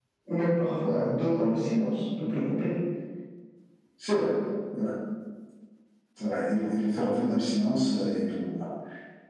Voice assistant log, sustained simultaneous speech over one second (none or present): none